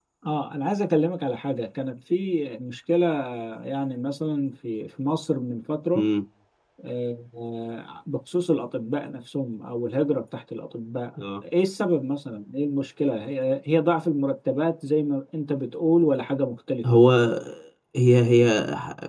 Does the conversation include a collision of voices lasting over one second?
No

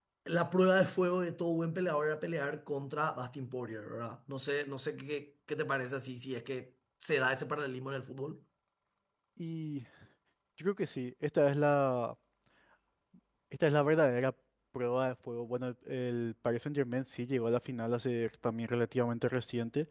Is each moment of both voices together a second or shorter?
Yes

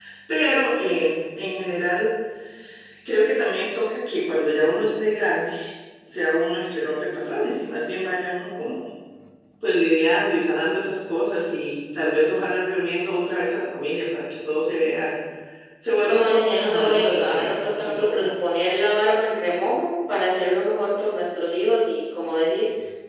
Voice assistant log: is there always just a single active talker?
No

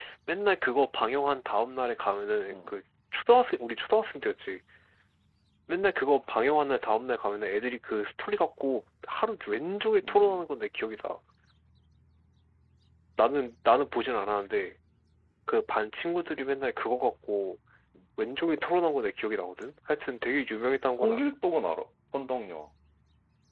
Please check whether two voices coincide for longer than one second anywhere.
No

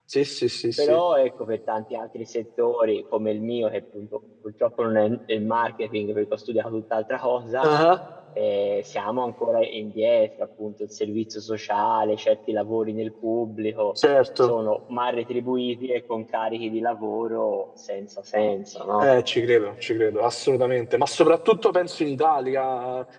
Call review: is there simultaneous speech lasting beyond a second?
No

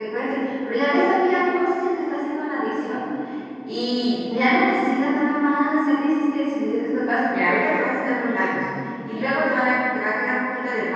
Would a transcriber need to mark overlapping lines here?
No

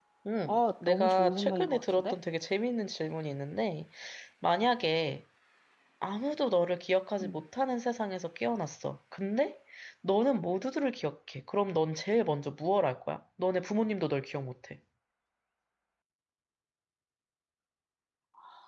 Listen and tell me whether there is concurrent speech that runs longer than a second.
Yes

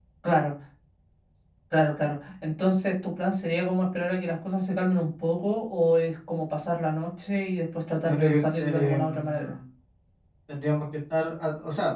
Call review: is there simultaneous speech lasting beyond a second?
Yes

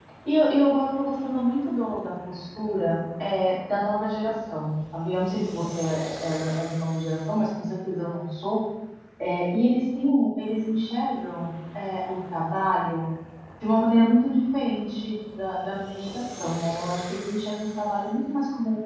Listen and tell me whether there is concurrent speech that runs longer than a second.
No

